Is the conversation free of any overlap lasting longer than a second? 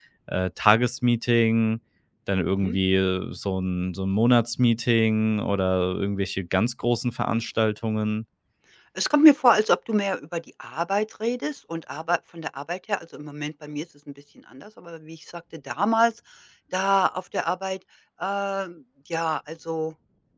Yes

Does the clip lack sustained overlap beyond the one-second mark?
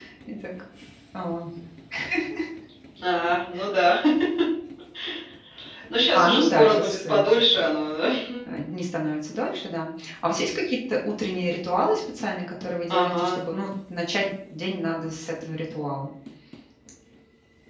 No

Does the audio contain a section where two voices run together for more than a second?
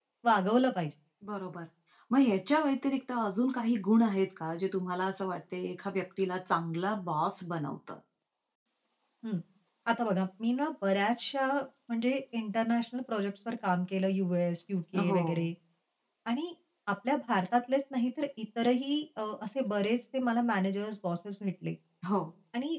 No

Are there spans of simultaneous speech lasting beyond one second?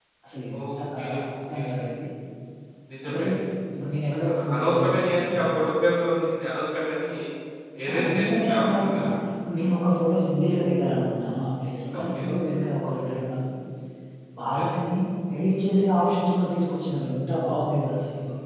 Yes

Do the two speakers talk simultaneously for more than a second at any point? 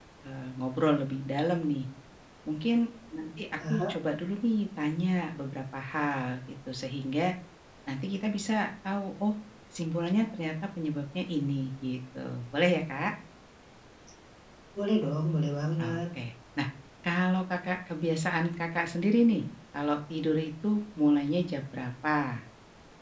No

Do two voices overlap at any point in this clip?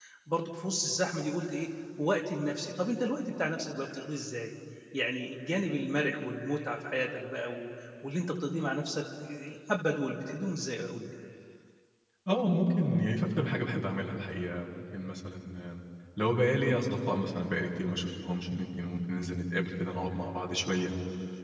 No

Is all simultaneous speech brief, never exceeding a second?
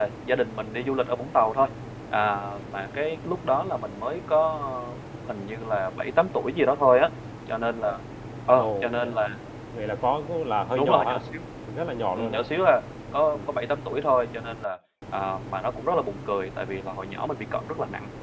Yes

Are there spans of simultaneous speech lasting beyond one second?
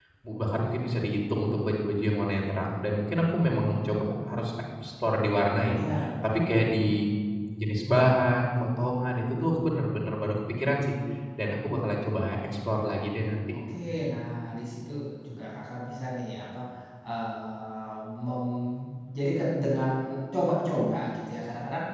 No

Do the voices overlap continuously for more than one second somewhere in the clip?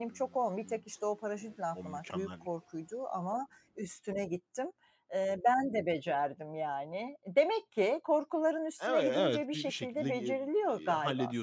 Yes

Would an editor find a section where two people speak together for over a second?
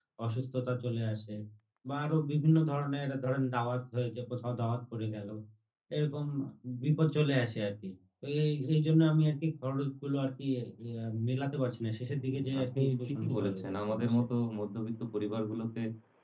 Yes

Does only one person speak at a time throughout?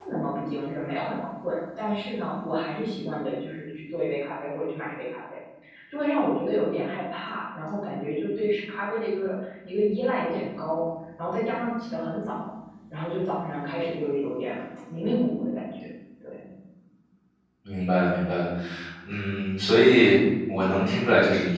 Yes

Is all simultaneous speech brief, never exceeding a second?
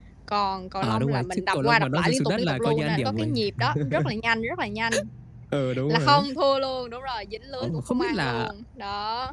No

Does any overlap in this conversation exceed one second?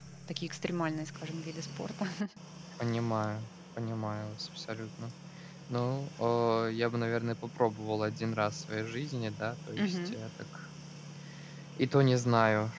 No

